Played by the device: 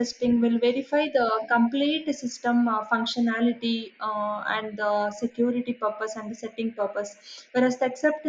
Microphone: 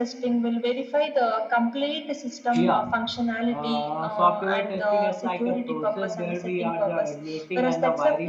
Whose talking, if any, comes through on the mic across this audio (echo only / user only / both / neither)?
both